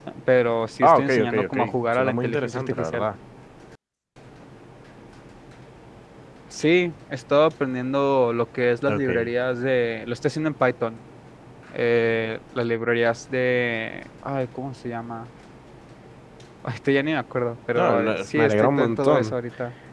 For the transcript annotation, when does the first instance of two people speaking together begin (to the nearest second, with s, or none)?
1 s